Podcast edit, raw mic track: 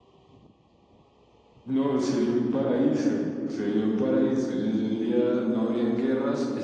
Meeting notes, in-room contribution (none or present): none